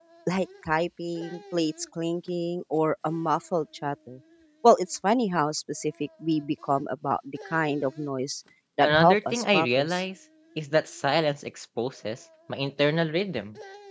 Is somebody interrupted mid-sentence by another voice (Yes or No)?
Yes